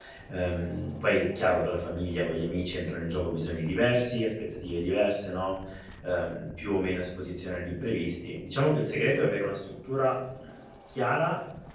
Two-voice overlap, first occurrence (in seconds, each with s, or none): none